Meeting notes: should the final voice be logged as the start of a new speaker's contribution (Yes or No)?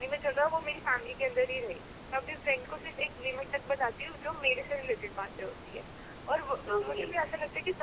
No